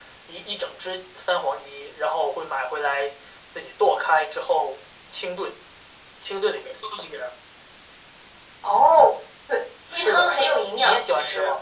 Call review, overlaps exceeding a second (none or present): present